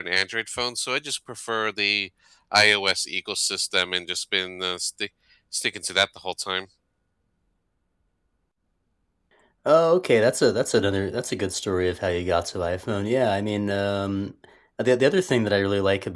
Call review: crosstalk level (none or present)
none